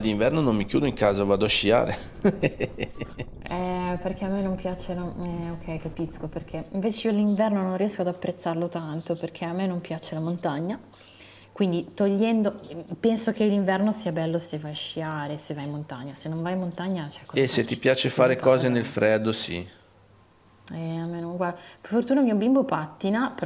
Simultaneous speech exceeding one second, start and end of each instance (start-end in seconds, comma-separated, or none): 17.4-18.8